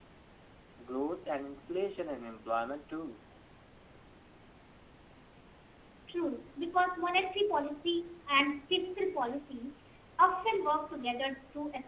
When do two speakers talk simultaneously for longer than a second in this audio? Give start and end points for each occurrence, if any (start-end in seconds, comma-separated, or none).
none